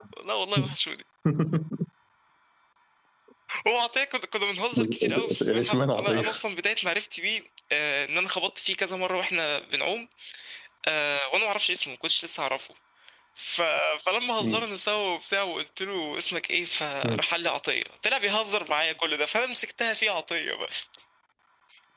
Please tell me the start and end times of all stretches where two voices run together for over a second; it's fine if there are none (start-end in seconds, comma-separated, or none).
4.7-6.2